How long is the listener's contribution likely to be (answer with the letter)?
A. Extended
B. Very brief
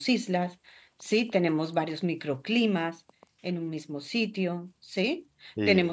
B